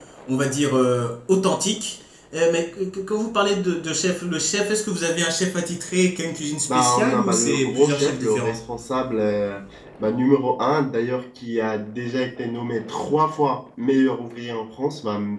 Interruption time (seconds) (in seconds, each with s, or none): 6.7 s